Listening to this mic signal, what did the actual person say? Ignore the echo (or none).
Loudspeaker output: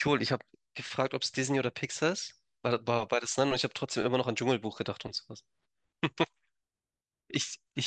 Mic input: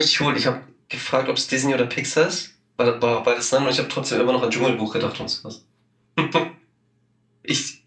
none